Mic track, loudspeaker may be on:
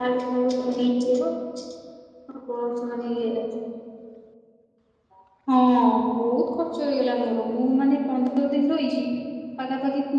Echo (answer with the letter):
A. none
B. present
A